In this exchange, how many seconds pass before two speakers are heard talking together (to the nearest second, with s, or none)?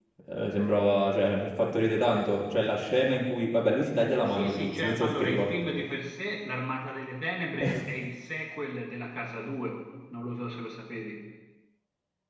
4 s